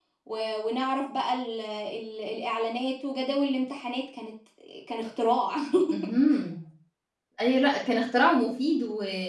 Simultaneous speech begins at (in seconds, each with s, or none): none